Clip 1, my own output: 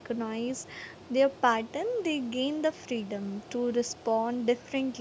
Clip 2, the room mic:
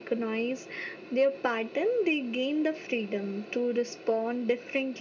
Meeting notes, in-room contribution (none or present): none